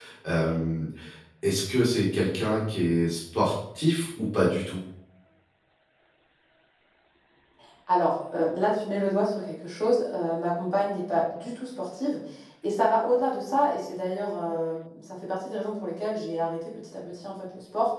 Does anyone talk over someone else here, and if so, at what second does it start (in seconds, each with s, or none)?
none